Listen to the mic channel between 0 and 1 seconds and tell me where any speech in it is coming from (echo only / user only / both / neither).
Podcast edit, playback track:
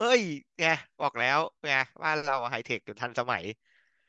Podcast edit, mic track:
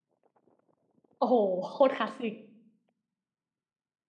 neither